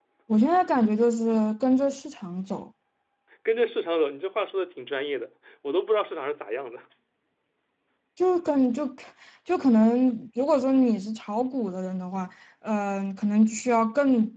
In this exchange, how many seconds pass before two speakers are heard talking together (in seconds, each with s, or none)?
none